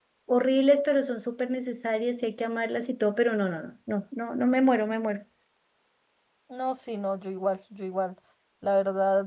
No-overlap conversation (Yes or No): Yes